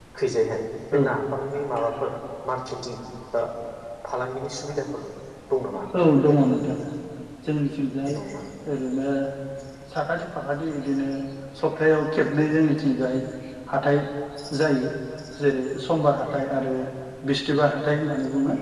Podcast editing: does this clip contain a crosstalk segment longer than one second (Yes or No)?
No